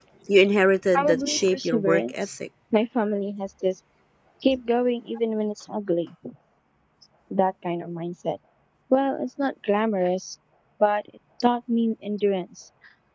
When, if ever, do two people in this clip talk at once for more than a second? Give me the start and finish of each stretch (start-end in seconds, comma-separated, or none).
0.9-2.4